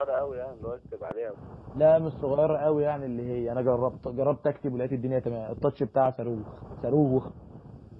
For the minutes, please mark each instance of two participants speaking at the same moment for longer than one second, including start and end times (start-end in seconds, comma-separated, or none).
none